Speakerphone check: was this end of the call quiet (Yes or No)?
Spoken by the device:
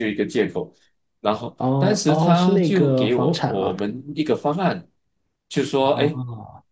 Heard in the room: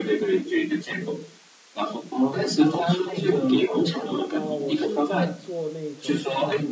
No